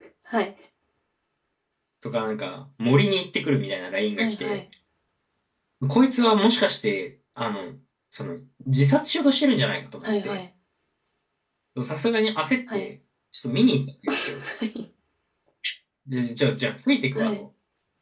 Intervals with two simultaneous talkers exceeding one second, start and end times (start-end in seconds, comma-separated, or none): none